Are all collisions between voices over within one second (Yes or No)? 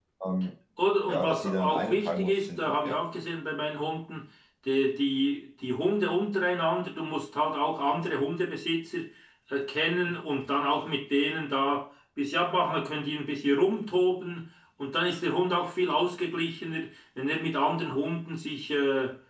No